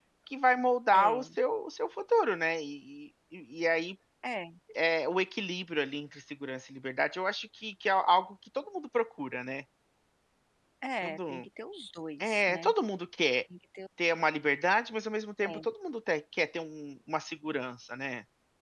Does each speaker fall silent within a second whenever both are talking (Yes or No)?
Yes